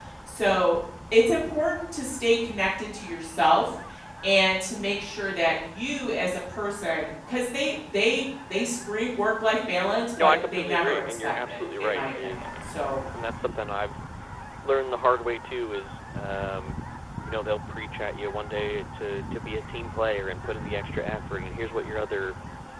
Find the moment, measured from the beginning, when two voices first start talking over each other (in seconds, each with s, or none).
10.2 s